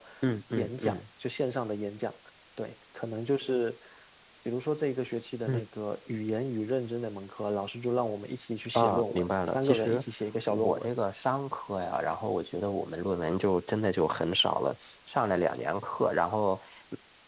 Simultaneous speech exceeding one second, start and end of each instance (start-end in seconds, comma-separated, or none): 8.7-10.1